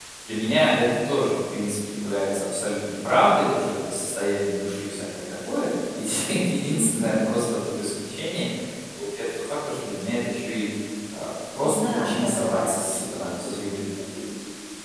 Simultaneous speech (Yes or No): Yes